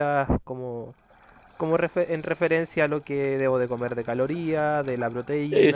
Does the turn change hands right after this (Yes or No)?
No